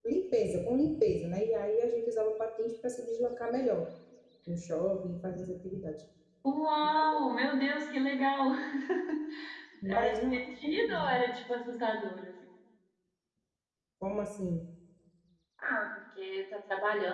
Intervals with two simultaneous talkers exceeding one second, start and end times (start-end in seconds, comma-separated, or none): 10.0-11.2